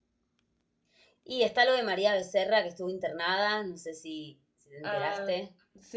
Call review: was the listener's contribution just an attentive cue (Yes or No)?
No